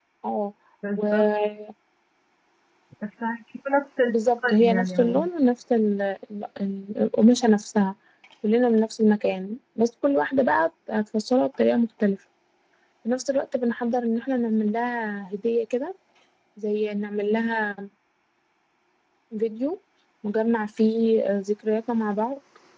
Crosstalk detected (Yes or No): Yes